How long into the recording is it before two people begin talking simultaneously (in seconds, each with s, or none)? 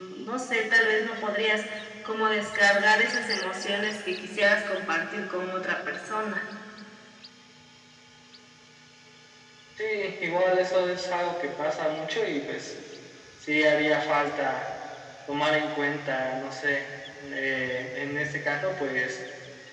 none